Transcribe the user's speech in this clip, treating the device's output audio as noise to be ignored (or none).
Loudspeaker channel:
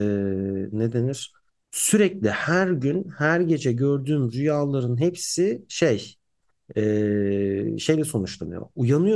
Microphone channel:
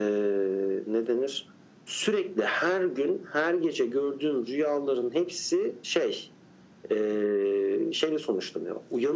none